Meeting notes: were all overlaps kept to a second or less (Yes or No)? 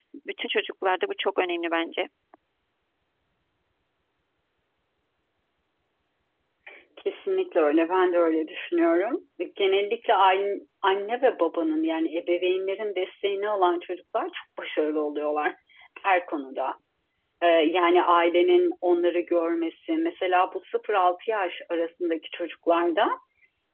Yes